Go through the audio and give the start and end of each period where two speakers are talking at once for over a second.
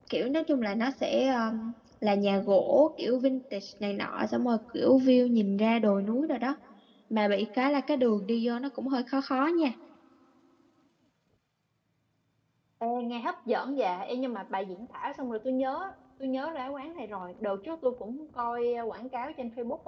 none

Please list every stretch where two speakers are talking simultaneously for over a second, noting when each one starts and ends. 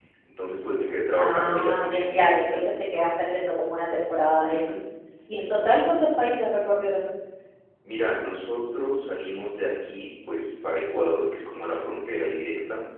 1.1-2.7

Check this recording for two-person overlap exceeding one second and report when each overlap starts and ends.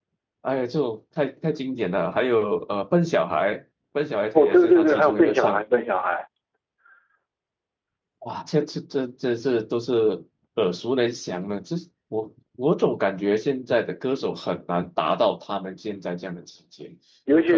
4.3-5.6

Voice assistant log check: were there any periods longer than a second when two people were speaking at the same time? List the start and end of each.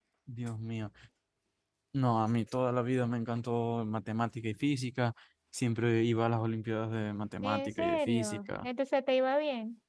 7.4-8.7

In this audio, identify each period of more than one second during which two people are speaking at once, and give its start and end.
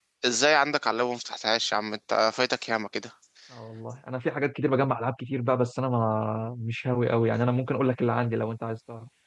none

